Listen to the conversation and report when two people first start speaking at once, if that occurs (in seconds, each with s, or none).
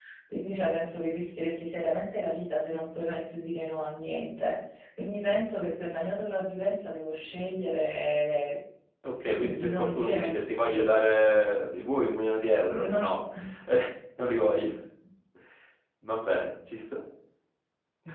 9.2 s